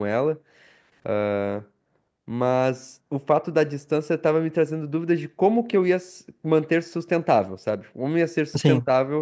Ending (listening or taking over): listening